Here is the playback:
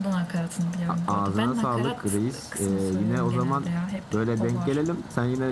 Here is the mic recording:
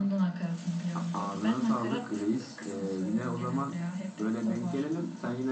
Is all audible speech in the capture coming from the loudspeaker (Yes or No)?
Yes